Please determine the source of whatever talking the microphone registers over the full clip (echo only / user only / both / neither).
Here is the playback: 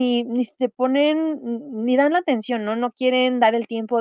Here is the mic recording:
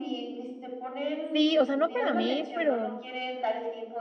both